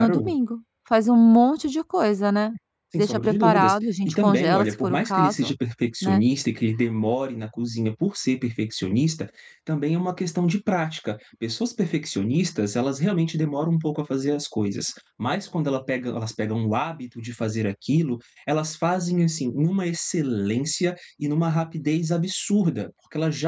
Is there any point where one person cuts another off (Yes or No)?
Yes